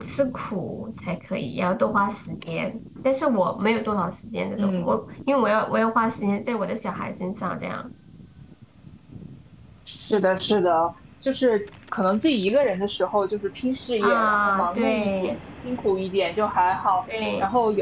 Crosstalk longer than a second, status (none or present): present